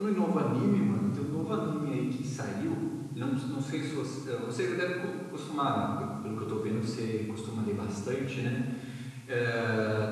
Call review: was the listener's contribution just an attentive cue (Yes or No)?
Yes